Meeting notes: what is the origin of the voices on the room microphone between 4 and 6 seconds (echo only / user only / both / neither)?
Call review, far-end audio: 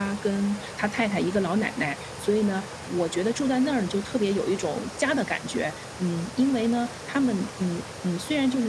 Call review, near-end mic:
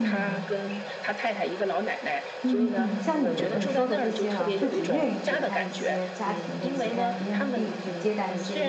both